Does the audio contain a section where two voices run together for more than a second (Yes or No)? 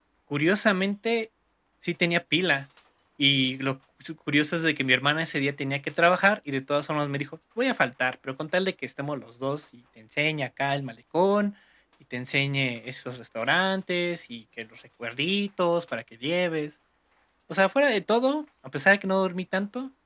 No